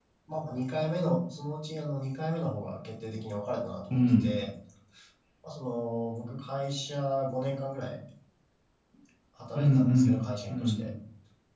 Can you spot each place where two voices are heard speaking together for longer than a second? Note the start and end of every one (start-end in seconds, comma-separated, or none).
9.6-10.8